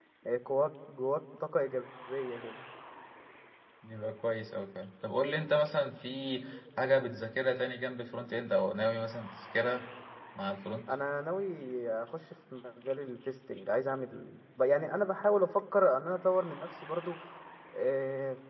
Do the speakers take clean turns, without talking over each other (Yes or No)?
Yes